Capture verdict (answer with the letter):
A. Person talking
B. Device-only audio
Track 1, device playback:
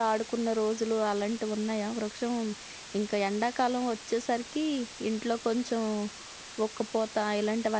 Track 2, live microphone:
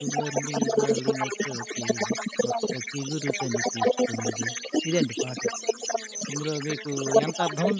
A